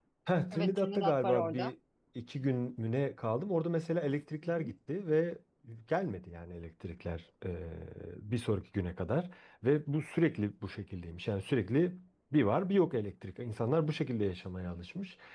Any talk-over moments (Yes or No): Yes